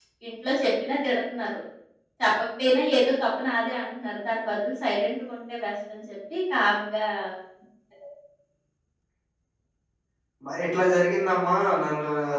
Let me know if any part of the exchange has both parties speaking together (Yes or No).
No